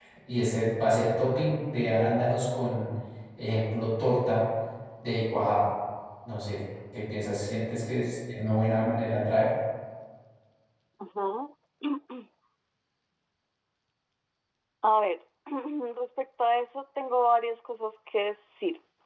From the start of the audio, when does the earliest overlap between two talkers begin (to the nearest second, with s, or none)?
none